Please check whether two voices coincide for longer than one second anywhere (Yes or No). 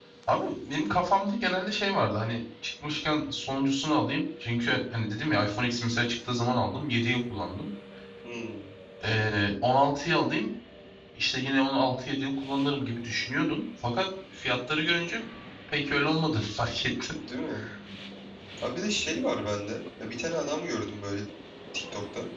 No